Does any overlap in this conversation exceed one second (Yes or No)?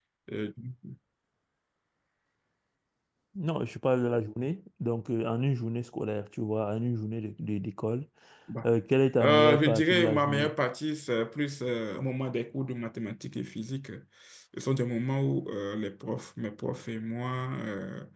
Yes